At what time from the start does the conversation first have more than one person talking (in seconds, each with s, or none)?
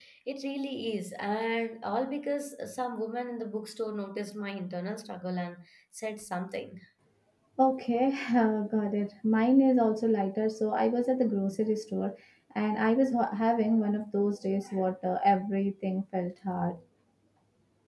none